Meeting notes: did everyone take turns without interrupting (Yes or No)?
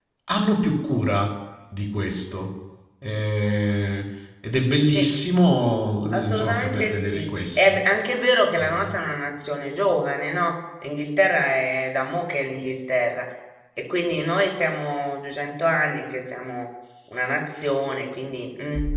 No